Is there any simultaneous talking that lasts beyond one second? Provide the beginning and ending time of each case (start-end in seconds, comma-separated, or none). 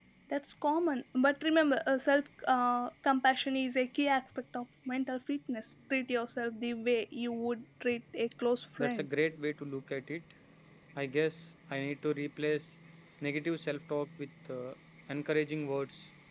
none